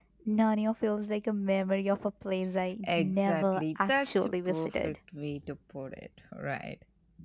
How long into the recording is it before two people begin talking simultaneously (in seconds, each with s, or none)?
2.8 s